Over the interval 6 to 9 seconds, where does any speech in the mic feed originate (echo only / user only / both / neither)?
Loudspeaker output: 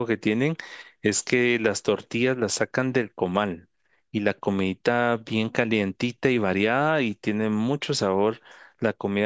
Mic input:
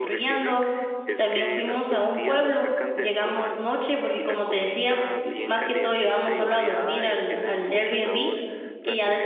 both